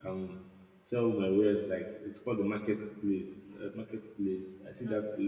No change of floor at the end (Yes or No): Yes